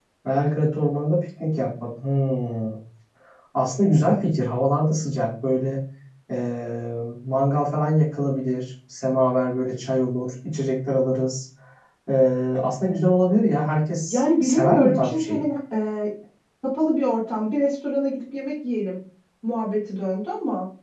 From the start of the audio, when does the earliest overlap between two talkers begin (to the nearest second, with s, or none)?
14 s